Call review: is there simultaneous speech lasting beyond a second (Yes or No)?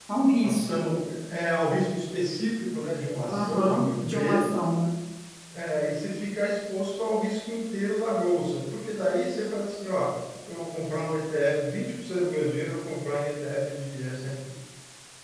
Yes